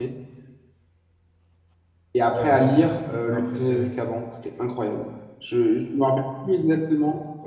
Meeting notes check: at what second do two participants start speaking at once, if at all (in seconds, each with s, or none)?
2.3 s